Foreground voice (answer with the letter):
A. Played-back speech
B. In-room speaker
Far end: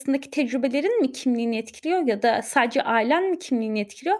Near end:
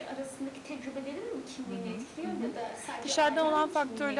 B